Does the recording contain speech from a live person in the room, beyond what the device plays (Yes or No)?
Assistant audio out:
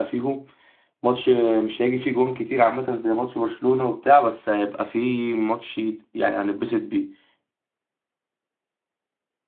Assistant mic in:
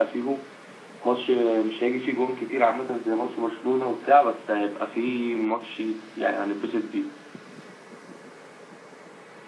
No